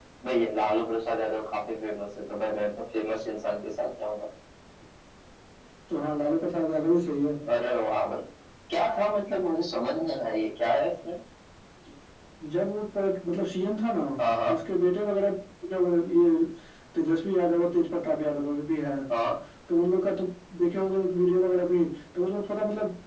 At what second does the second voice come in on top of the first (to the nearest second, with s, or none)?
none